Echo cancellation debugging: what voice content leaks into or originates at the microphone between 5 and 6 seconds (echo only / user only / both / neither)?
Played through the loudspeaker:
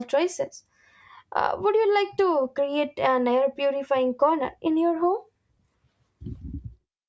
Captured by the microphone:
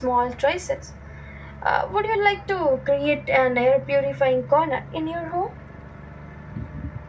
echo only